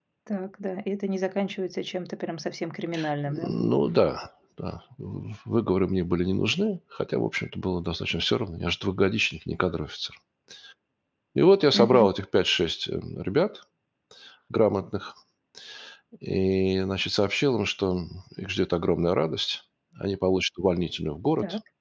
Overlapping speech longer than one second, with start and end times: none

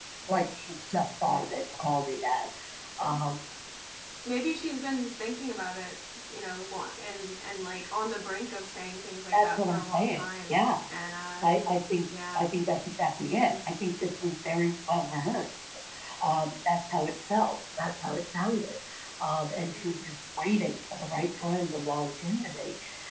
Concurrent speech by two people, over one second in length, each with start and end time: 9.3-10.6

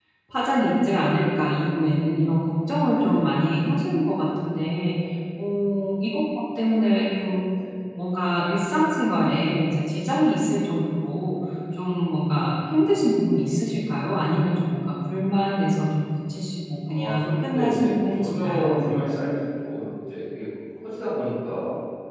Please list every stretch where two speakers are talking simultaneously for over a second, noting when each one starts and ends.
16.9-18.9

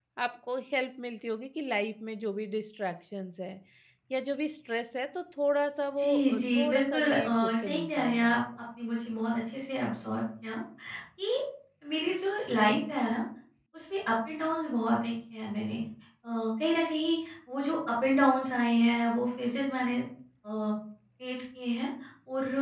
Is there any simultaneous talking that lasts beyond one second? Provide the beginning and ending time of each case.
6.0-8.3

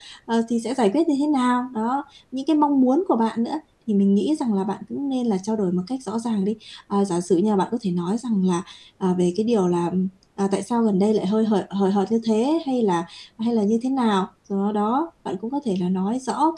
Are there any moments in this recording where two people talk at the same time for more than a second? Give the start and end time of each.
none

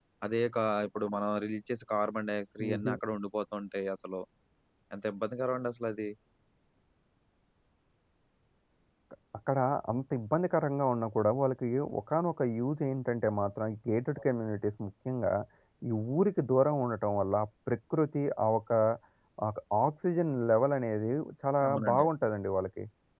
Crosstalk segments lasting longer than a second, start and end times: none

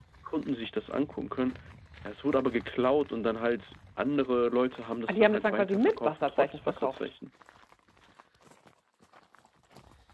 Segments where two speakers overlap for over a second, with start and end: 5.1-7.1

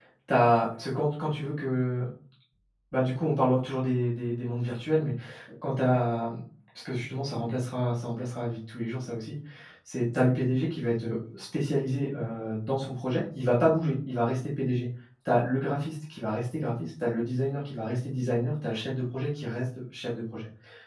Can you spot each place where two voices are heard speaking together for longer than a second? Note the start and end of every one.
none

